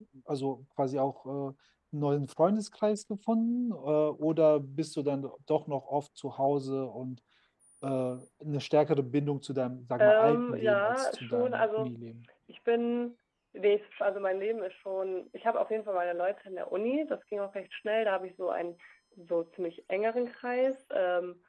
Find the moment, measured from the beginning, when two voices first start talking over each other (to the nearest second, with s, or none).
10 s